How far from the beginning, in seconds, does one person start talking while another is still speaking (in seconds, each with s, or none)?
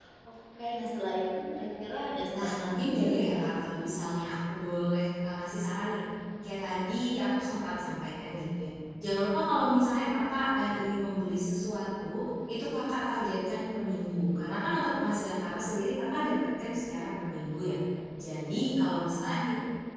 2.3 s